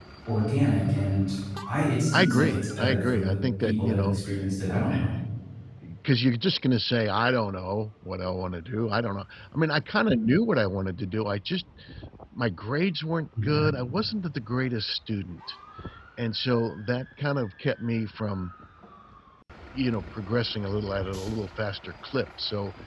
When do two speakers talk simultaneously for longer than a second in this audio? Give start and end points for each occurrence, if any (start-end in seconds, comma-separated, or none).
2.1-4.2